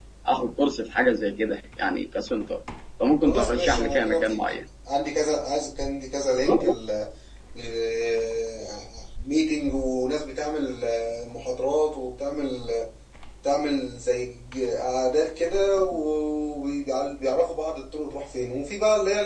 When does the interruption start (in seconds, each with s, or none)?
3.2 s